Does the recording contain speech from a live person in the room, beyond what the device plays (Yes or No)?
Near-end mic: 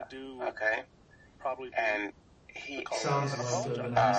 Yes